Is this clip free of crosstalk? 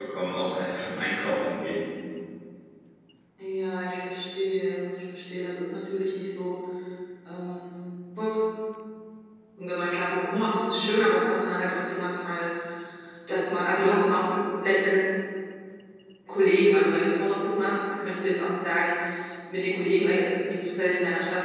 Yes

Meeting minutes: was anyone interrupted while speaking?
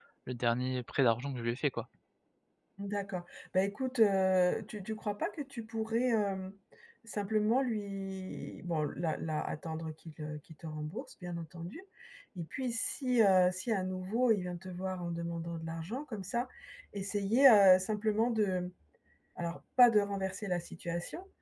No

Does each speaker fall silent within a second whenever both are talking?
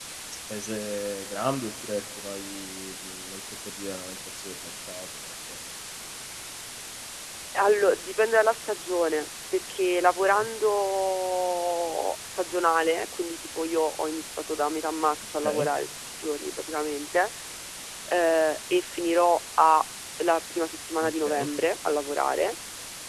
Yes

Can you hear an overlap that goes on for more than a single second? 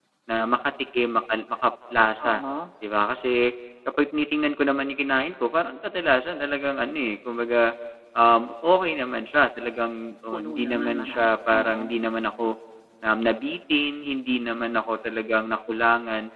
Yes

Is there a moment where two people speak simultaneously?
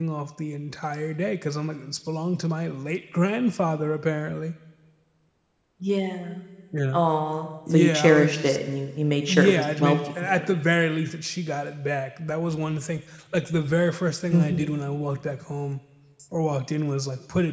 Yes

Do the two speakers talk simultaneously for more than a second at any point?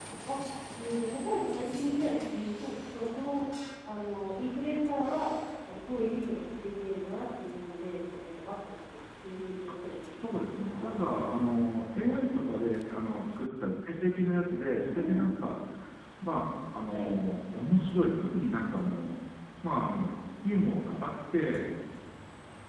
Yes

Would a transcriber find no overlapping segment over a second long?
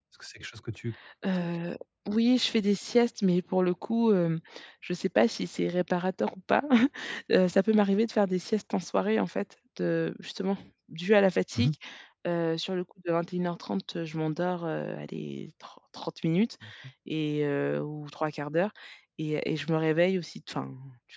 Yes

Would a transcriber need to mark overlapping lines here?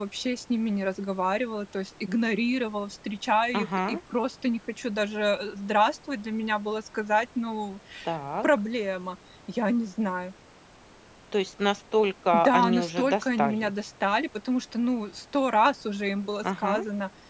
Yes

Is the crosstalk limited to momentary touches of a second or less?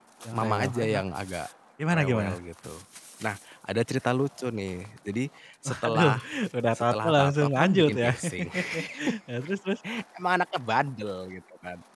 No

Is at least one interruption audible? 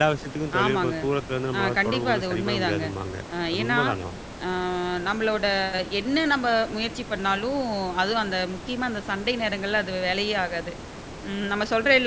Yes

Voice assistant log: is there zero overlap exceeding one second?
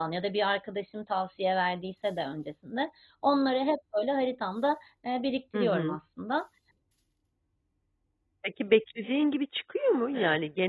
Yes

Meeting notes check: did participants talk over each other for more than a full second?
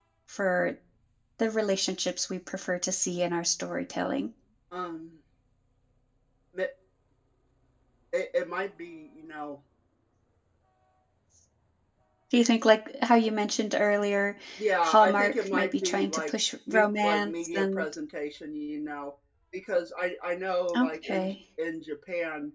Yes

